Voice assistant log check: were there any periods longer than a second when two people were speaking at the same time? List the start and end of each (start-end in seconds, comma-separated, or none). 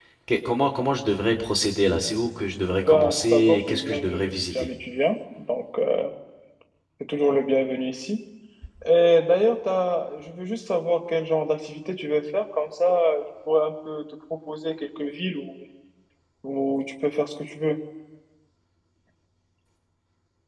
2.9-4.7